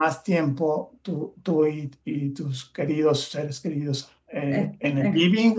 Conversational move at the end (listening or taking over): listening